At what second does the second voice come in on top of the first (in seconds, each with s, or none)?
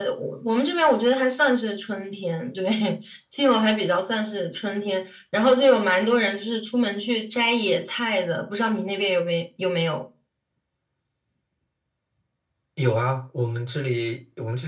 none